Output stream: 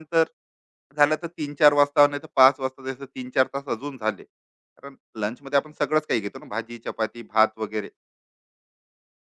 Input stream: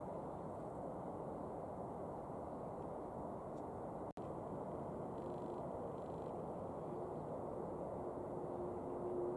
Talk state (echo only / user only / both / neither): neither